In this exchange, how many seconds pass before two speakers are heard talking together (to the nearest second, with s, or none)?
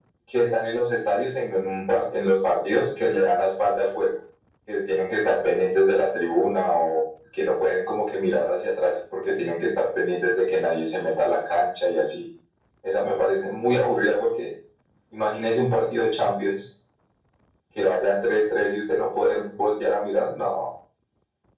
none